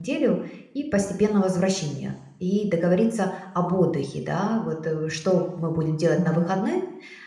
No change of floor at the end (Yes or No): Yes